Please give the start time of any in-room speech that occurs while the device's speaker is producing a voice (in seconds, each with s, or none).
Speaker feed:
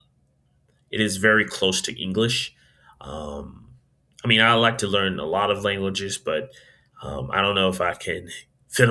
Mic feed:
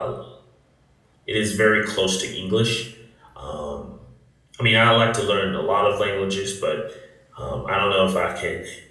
none